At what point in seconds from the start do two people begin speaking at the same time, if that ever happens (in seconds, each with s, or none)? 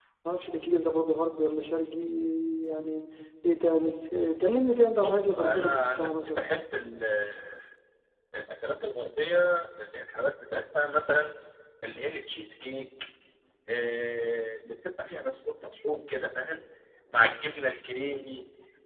5.0 s